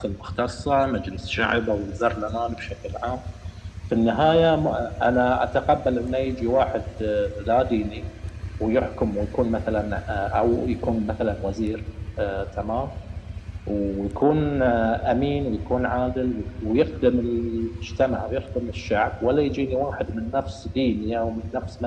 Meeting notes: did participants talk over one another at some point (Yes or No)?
No